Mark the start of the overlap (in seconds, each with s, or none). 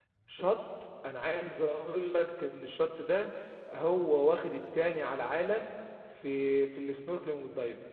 none